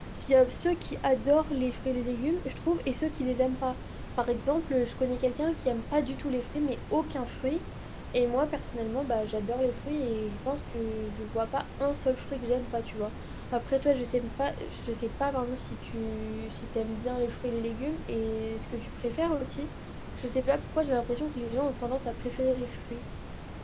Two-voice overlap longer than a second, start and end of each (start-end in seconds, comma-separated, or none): none